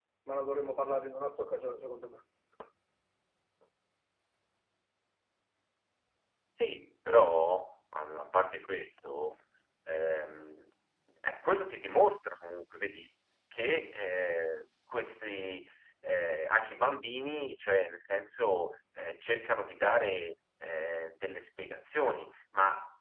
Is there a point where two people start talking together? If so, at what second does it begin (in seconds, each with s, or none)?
none